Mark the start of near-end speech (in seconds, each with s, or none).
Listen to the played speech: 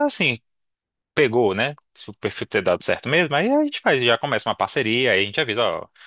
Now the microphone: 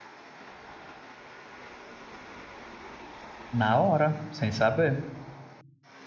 3.5 s